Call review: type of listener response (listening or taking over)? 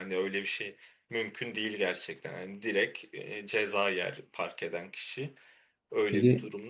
taking over